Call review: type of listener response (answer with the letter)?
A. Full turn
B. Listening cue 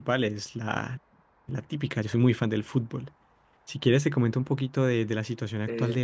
A